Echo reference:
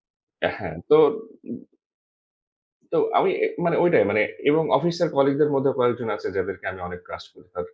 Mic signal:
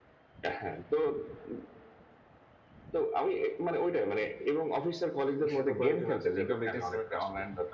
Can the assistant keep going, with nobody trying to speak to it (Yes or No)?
No